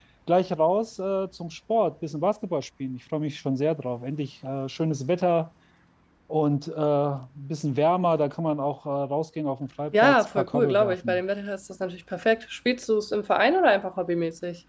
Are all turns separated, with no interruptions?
No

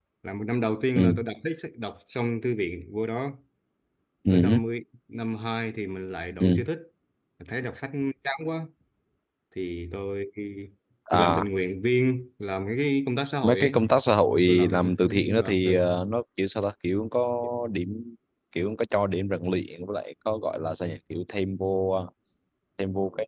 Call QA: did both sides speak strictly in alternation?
No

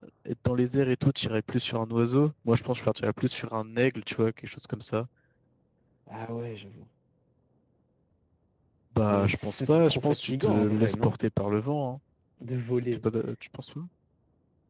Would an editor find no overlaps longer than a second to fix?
No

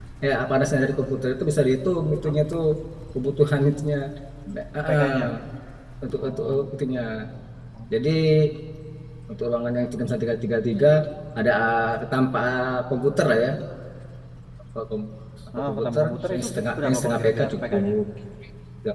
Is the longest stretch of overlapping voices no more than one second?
No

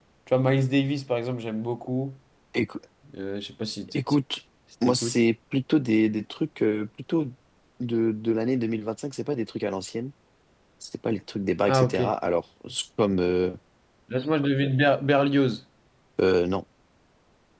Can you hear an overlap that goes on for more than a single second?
No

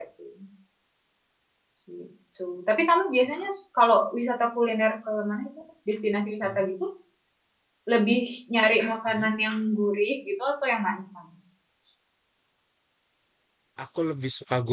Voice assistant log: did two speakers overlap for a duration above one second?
No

